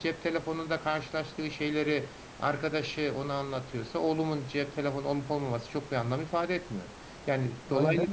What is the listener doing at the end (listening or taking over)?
taking over